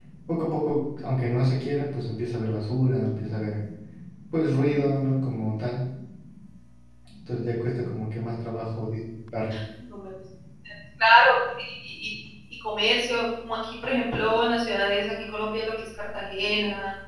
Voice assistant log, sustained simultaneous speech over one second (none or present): none